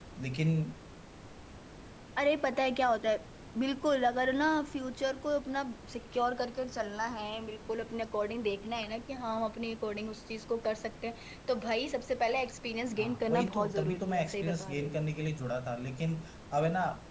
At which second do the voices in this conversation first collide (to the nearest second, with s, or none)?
13 s